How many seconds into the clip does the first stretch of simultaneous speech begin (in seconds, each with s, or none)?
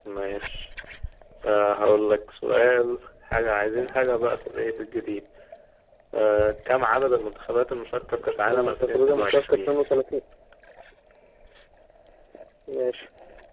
8.4 s